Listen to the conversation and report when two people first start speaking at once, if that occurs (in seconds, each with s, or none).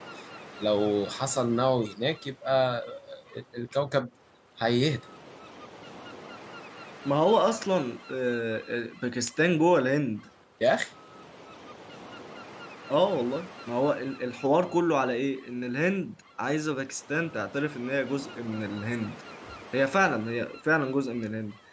none